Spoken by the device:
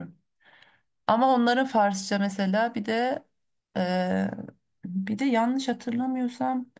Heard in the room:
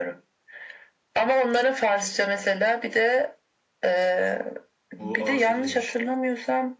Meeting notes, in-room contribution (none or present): present